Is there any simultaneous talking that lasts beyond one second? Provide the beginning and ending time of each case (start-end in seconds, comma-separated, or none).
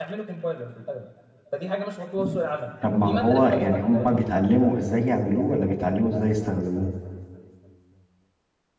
3.0-4.2